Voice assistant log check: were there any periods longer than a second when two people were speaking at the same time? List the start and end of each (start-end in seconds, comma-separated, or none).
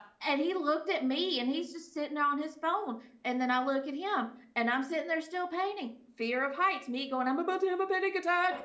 none